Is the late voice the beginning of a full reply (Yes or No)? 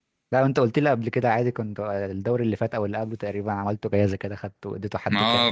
Yes